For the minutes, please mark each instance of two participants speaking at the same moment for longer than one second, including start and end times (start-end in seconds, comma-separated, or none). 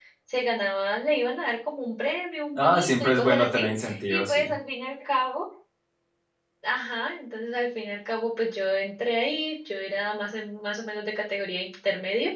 2.5-4.5